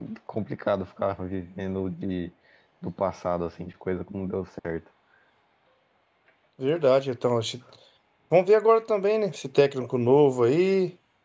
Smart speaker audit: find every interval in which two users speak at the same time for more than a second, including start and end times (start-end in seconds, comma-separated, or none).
none